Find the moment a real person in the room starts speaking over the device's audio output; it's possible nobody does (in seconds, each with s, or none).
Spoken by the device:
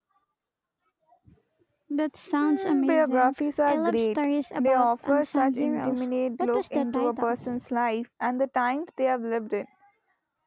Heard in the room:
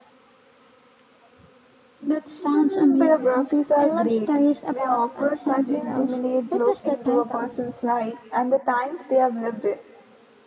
none